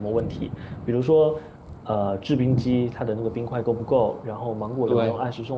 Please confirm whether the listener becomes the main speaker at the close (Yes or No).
No